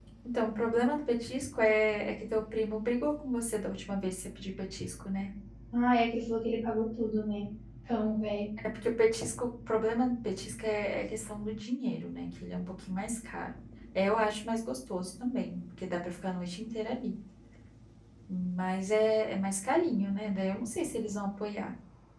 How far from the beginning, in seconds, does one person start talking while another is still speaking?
none

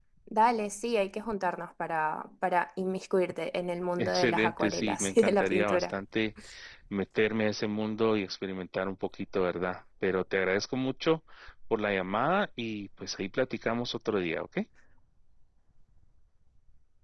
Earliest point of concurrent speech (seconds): 4.0 s

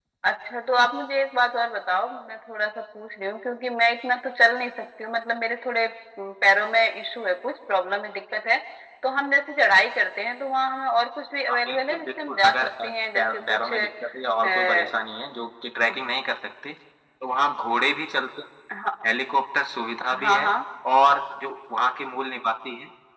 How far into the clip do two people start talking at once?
11.7 s

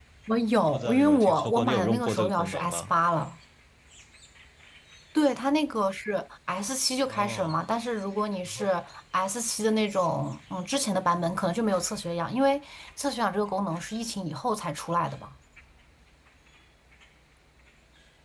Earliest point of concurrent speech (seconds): 0.7 s

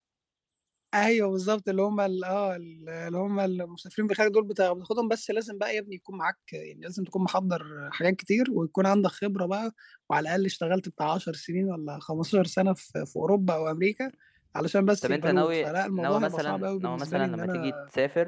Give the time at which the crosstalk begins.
15.0 s

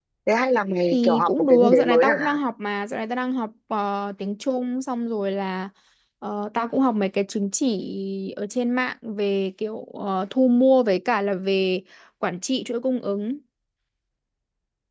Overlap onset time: 0.9 s

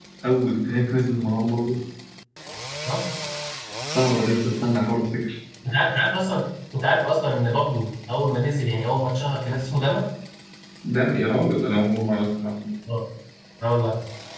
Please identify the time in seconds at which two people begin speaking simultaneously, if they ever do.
none

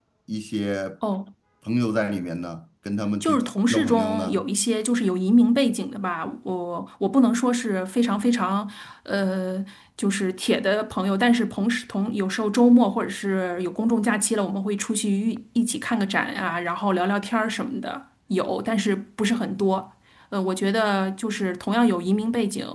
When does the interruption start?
3.2 s

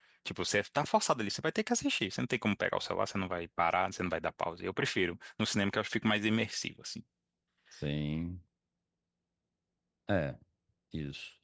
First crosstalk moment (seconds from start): none

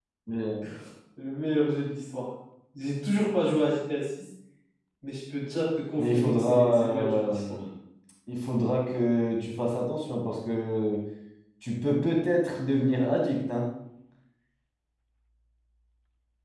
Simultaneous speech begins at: 6.0 s

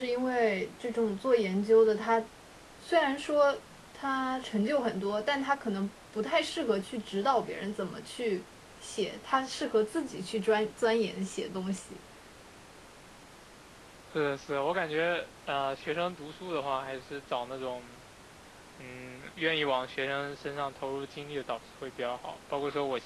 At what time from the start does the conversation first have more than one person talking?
none

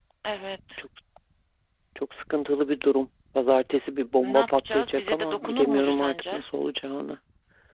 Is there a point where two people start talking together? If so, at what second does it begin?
4.2 s

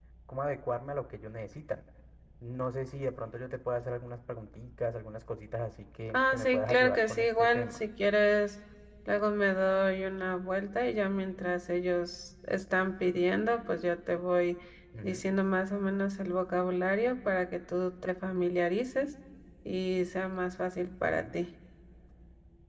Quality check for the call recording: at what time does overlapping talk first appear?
6.1 s

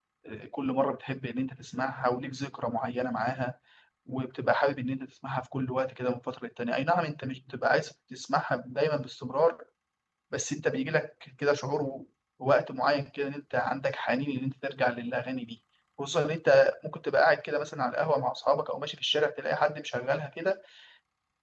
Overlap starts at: none

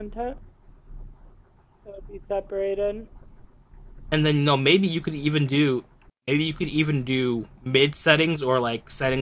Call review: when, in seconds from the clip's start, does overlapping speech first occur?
none

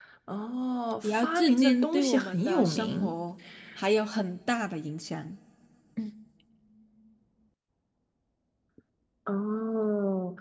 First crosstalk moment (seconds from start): 1.0 s

